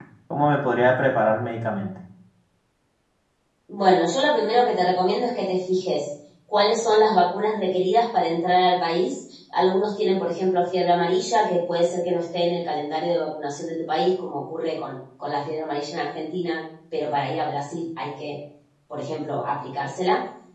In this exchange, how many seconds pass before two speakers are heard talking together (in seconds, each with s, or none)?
none